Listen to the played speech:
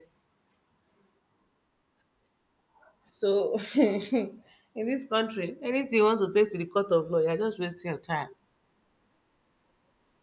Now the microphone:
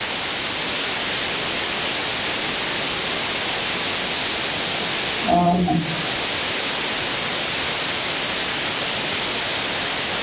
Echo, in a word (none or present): none